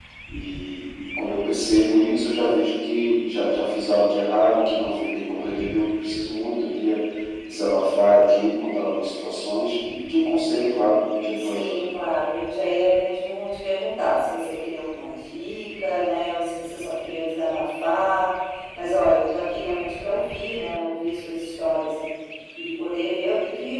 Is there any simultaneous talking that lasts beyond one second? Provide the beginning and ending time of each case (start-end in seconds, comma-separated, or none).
none